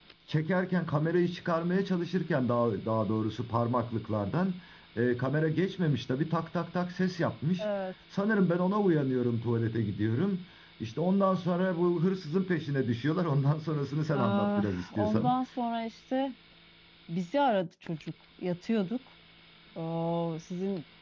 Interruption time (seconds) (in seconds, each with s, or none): 14.1 s